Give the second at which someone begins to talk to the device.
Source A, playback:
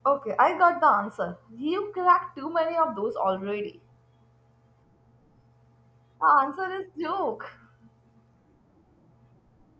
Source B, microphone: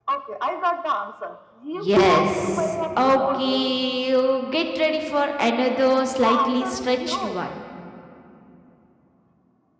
2 s

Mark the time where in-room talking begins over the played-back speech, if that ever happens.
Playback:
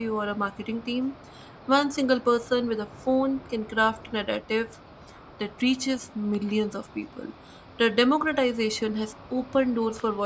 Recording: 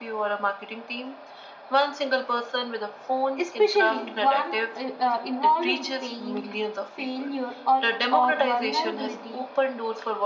3 s

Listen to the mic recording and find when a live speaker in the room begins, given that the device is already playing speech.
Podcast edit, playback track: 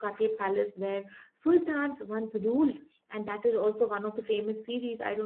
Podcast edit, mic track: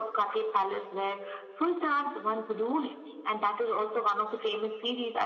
none

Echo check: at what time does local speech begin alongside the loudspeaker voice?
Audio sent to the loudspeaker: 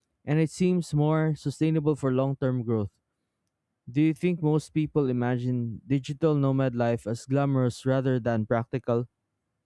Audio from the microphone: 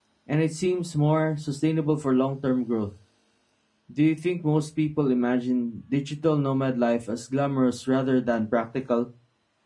none

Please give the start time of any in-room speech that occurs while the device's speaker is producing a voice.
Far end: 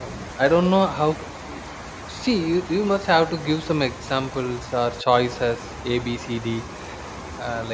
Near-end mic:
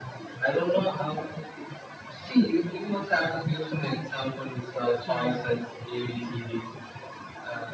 5 s

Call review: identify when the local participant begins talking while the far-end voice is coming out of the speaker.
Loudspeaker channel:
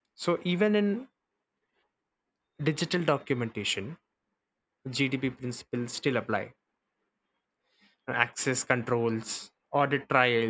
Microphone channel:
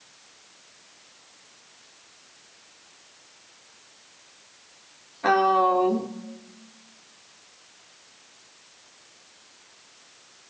5 s

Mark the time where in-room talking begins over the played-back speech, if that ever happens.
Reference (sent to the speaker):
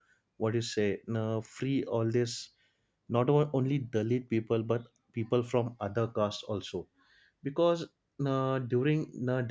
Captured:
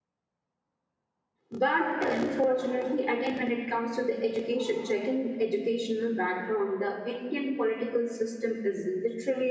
2 s

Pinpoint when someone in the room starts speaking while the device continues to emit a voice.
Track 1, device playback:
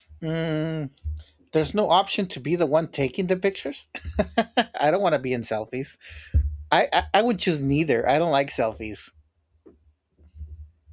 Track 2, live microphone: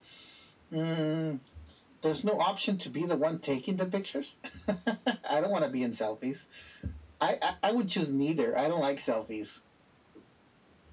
none

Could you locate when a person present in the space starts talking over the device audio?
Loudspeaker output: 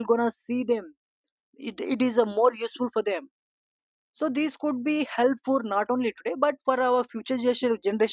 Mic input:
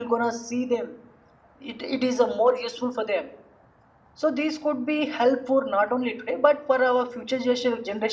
none

